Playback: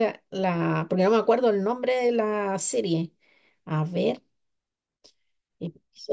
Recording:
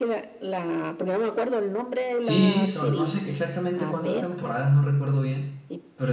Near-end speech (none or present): present